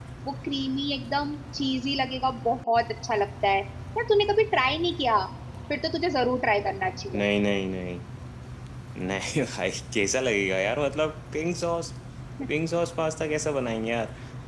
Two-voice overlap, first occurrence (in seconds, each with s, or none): none